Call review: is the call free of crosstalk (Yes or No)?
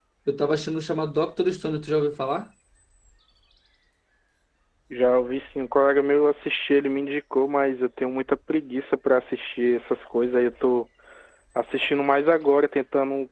Yes